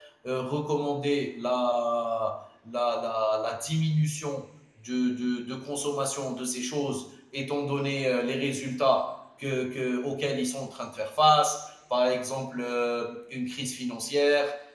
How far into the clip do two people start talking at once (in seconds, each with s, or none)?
none